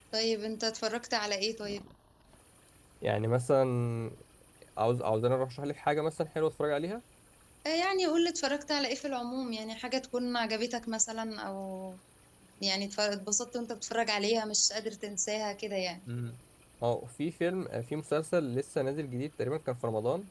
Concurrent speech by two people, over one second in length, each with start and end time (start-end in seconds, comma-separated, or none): none